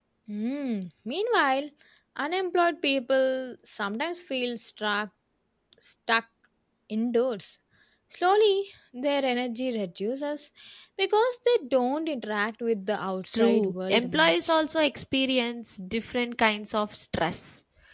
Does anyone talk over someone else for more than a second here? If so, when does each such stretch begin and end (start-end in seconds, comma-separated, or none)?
13.3-14.6